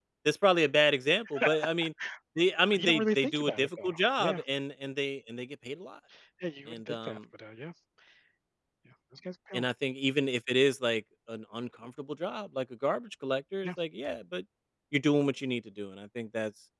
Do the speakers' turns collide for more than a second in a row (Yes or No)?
Yes